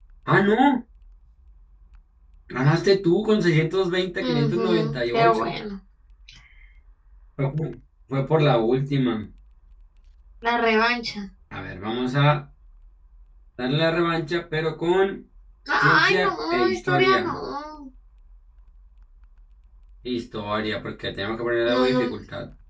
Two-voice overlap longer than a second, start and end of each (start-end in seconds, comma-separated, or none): 4.2-5.6, 16.0-17.4